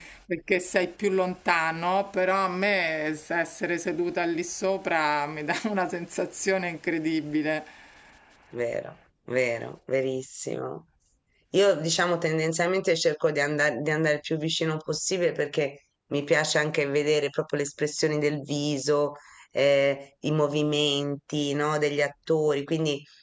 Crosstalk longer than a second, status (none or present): none